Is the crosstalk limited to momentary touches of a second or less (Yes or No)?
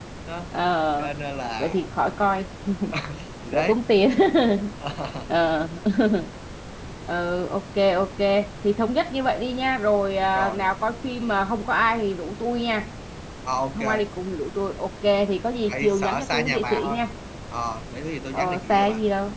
No